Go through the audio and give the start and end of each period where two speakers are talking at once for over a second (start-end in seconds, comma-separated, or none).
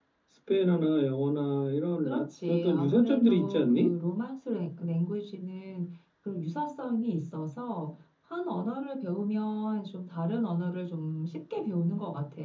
2.0-3.9